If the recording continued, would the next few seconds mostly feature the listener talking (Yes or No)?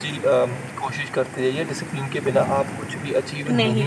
Yes